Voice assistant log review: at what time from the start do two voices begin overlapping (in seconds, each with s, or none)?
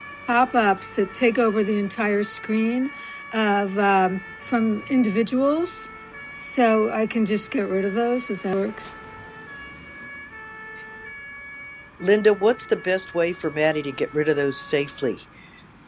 none